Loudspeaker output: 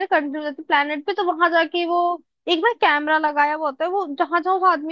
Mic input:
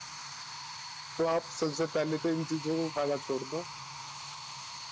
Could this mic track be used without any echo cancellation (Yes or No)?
Yes